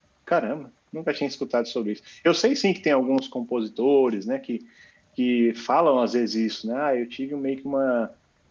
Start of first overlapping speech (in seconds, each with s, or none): none